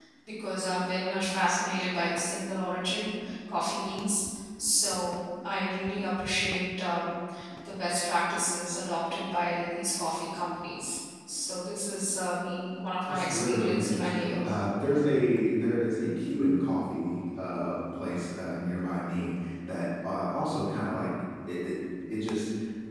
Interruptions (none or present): present